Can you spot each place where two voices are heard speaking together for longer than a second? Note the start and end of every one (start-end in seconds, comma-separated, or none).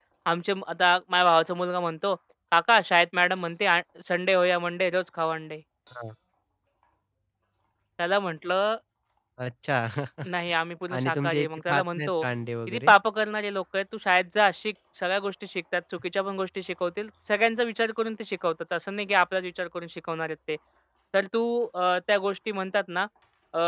10.9-12.2